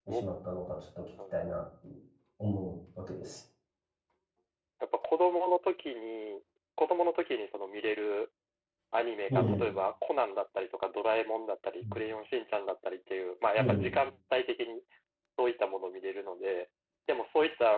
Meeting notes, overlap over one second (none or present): none